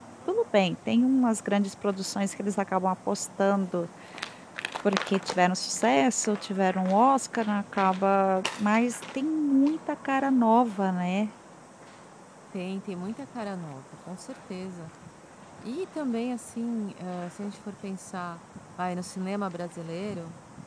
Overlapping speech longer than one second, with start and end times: none

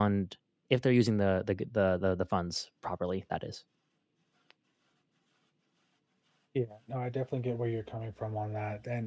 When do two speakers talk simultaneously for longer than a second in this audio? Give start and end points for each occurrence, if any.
none

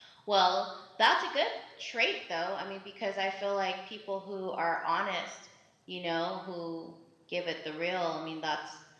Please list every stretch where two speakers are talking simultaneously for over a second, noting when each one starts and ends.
none

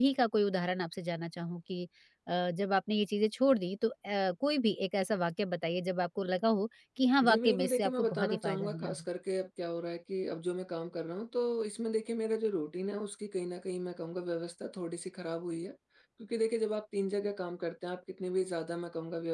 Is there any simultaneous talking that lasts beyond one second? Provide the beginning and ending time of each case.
7.2-9.0

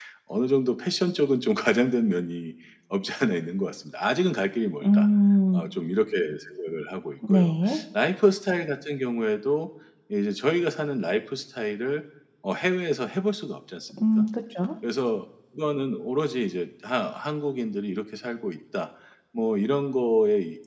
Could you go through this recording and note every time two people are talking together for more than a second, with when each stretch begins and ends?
none

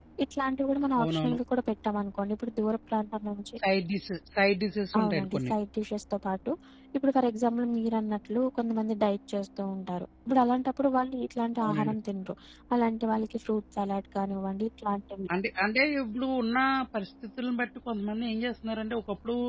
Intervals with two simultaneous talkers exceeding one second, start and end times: none

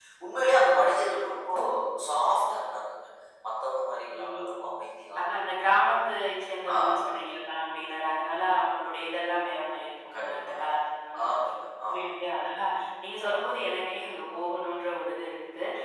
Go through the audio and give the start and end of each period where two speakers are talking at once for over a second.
none

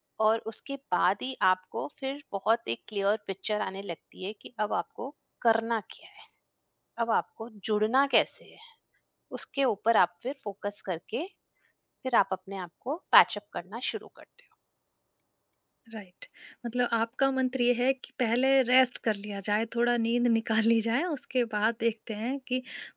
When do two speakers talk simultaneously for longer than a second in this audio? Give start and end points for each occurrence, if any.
none

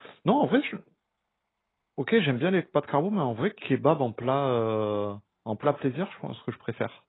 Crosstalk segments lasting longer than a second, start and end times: none

